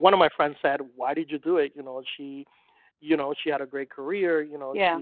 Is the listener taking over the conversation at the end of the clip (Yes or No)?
No